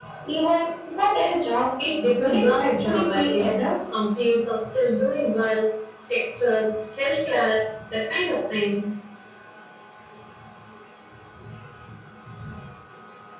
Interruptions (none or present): present